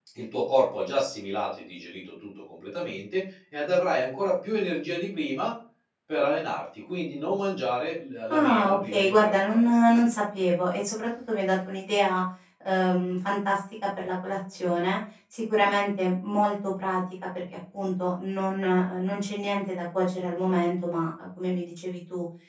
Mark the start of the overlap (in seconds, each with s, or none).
8.3 s